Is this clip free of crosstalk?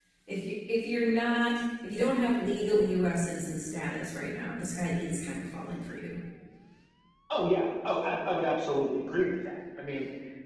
Yes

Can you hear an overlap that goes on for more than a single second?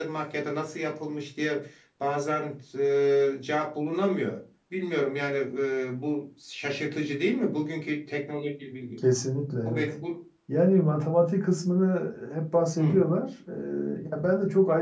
No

